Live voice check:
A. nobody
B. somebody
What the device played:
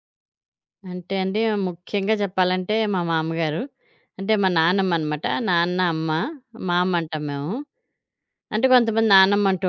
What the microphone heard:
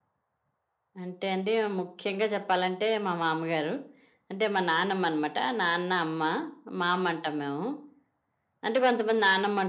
A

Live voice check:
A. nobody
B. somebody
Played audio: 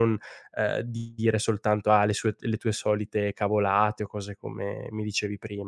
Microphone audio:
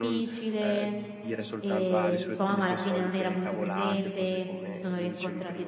B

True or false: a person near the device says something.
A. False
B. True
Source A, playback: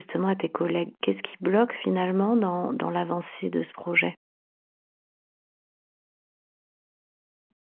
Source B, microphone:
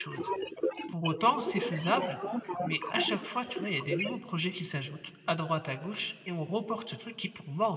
B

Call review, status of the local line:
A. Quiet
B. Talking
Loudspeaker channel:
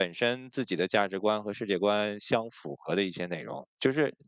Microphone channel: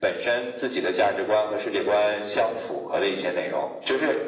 A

